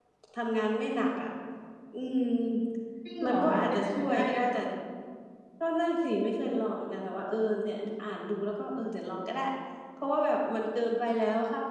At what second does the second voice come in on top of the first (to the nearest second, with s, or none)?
3 s